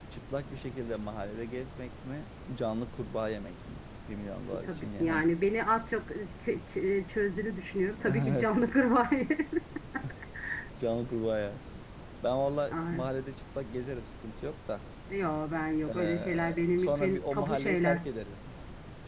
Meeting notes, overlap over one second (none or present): present